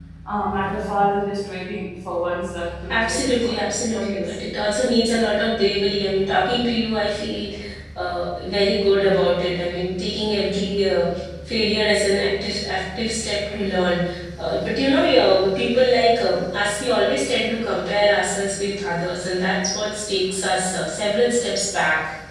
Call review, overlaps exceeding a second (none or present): present